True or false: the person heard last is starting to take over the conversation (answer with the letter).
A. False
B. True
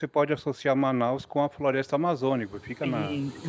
B